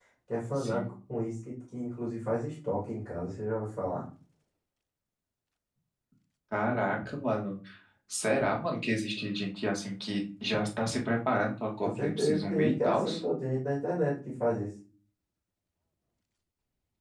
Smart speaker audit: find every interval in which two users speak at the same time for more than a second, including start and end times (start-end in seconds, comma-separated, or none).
11.8-13.0